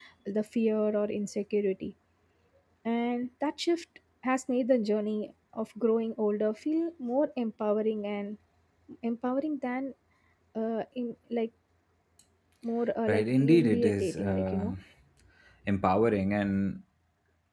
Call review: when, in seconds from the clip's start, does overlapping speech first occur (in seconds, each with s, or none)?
13.1 s